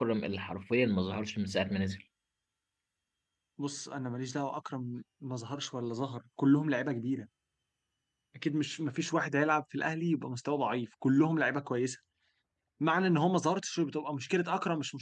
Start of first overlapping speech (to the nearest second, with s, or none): none